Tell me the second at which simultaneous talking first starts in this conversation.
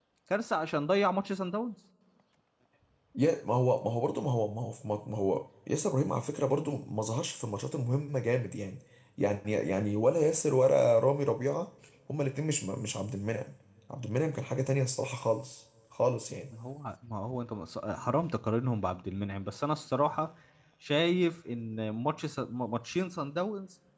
none

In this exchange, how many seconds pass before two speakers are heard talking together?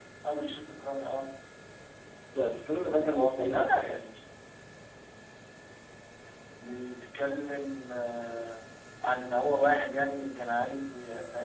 3 s

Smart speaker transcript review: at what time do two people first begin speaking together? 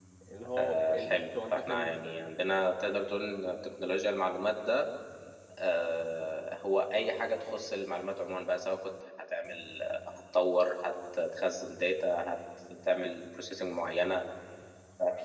1 s

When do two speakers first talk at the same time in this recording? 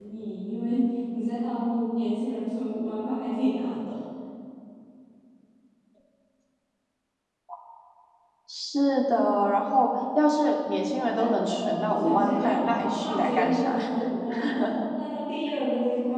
11 s

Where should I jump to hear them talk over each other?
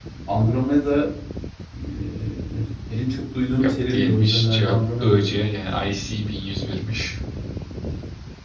4 s

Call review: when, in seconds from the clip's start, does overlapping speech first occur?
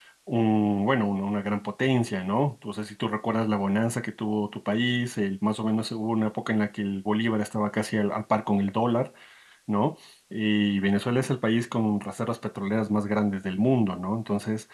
none

